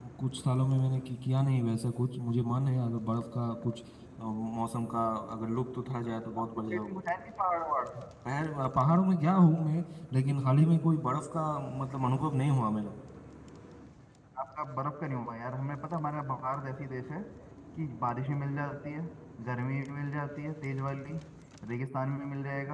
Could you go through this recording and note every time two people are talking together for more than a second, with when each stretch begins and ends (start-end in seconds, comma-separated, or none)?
none